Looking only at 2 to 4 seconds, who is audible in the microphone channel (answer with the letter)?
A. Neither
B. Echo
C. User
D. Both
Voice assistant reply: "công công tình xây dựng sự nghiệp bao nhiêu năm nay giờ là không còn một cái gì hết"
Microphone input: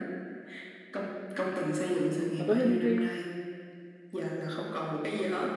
D